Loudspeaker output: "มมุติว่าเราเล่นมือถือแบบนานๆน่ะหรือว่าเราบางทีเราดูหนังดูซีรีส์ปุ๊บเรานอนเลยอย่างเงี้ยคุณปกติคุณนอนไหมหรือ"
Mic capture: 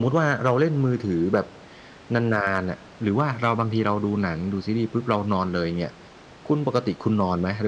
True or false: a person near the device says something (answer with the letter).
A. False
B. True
A